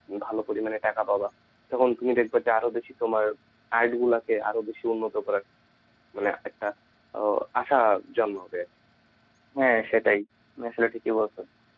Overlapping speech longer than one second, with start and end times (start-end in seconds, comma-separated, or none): none